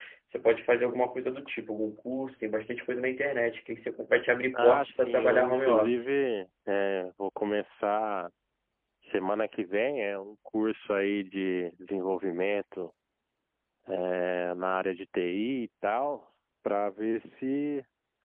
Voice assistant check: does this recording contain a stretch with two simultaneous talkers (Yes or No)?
Yes